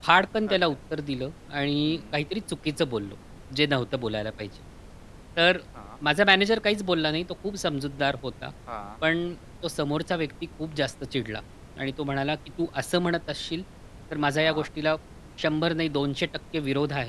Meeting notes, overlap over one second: none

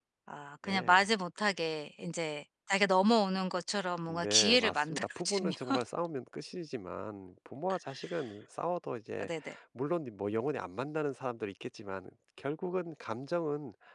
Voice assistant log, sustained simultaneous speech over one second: present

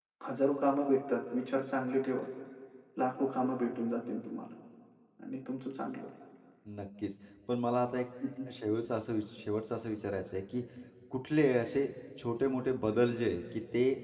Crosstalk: none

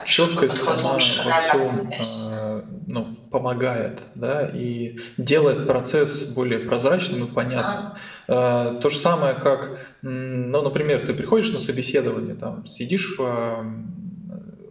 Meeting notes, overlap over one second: present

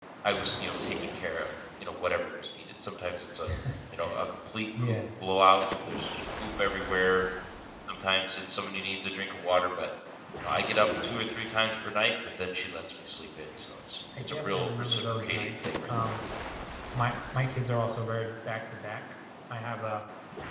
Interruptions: present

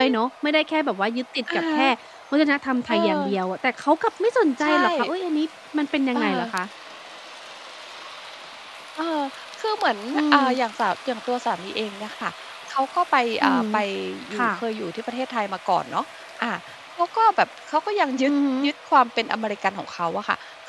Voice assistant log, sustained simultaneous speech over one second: none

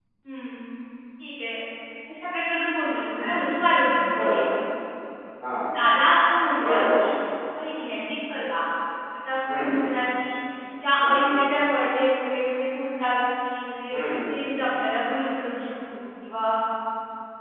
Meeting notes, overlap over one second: none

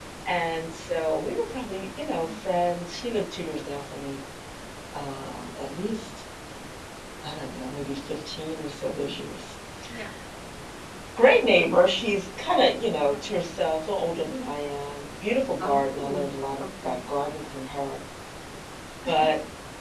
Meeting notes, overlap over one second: present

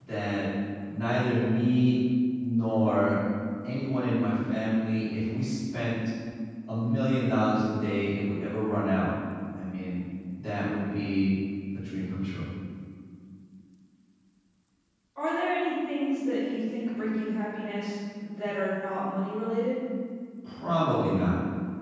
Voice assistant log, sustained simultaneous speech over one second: none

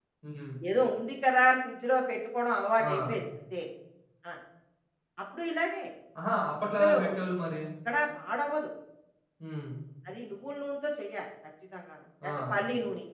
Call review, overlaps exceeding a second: none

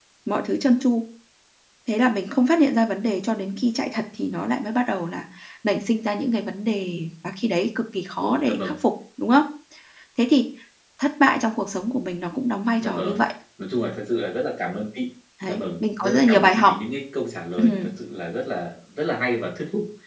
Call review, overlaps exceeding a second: present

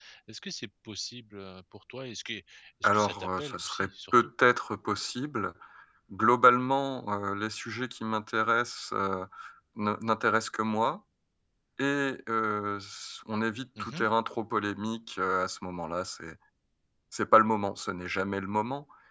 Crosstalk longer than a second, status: present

